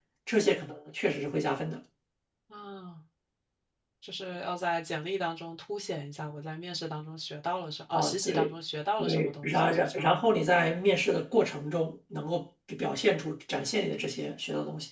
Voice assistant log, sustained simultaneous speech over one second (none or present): present